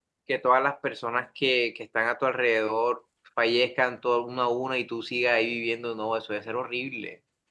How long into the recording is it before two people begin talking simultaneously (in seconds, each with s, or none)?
none